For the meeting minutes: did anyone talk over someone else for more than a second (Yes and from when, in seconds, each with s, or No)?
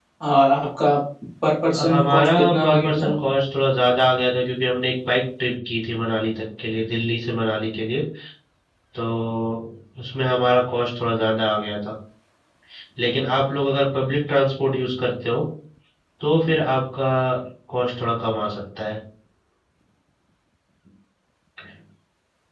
Yes, from 1.7 s